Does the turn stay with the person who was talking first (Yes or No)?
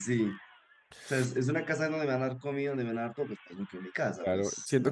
No